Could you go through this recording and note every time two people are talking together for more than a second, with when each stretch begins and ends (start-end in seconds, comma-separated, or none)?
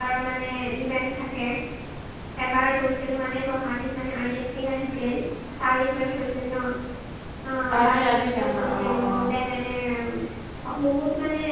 7.8-9.3